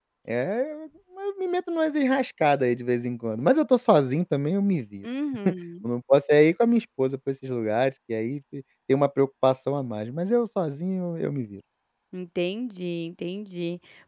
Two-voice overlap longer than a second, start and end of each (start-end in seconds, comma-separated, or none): none